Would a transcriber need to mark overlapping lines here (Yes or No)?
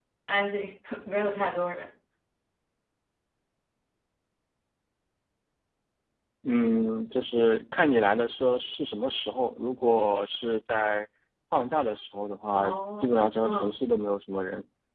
Yes